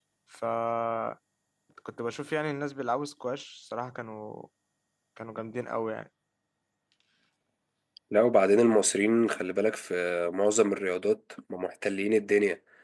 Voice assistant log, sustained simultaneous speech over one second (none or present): none